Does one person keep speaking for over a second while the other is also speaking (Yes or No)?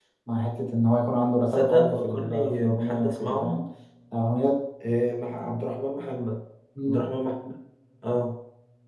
Yes